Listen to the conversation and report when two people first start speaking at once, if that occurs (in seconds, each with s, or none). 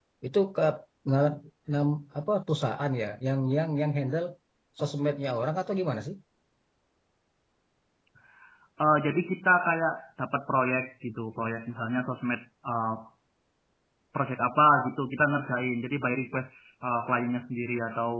none